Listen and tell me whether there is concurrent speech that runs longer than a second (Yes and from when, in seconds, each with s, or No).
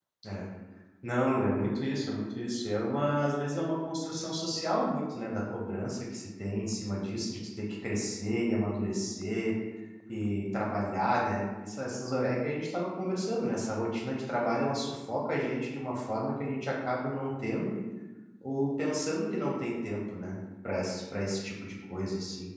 No